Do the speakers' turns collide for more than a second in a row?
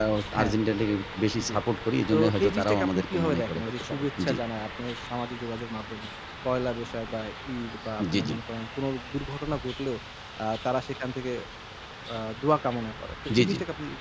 Yes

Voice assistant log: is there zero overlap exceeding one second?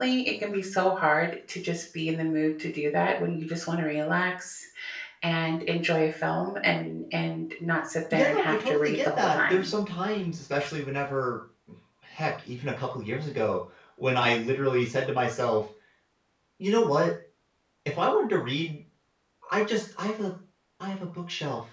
No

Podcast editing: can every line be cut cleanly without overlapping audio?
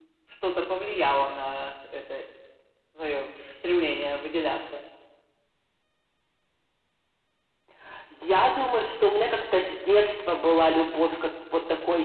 Yes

